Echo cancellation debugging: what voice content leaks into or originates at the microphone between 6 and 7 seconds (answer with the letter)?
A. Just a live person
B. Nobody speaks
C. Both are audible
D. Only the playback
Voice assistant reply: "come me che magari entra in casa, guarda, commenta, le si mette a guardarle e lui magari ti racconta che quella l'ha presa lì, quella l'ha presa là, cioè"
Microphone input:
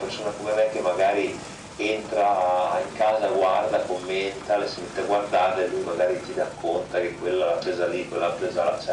D